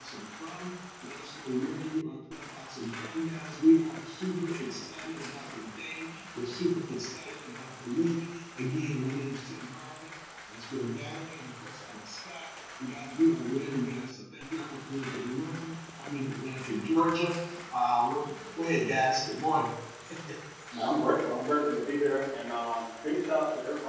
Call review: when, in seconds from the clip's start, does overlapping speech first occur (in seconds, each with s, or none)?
none